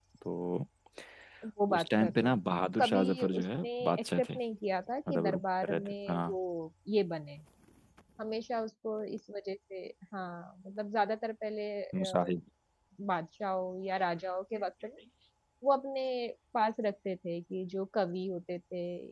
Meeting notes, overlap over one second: present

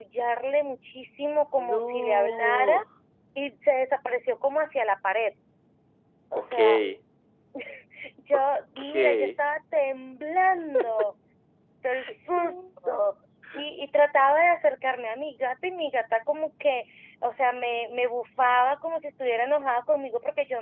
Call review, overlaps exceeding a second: present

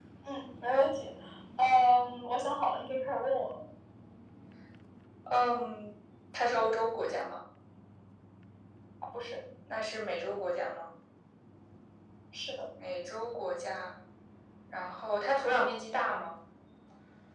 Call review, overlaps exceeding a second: none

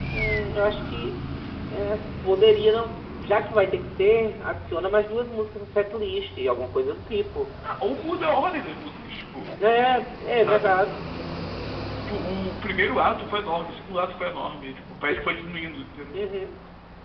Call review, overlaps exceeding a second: none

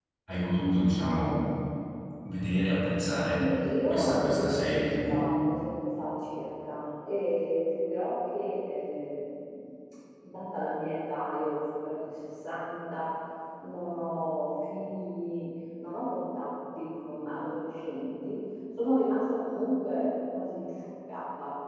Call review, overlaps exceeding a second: present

